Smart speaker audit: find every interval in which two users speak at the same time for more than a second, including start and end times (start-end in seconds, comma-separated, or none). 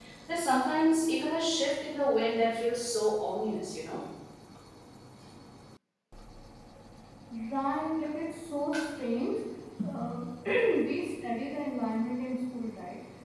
none